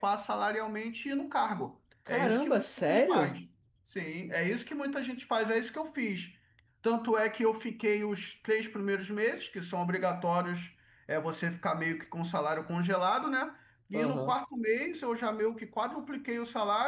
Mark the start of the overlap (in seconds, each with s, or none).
2.1 s